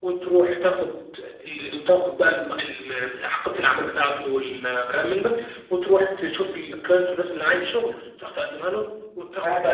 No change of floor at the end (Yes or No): No